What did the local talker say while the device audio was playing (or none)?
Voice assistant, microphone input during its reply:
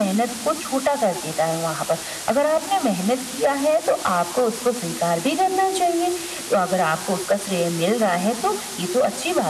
none